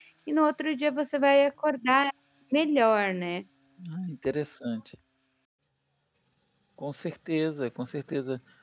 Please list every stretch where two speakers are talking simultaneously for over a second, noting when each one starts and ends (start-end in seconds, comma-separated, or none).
none